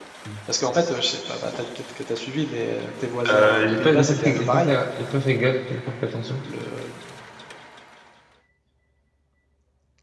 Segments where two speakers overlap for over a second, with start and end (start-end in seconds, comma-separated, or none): 3.3-4.7